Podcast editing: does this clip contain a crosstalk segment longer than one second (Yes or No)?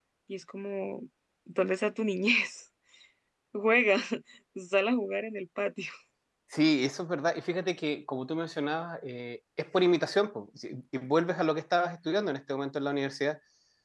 No